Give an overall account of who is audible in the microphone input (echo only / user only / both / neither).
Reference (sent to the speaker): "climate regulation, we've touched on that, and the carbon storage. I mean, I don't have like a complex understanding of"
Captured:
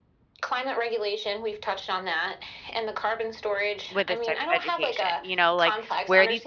both